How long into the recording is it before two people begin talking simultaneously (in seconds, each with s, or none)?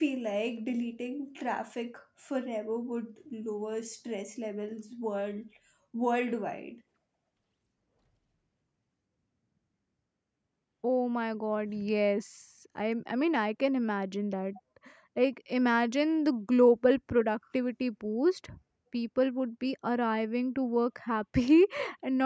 none